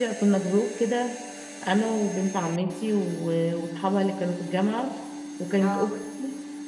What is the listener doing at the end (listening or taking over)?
listening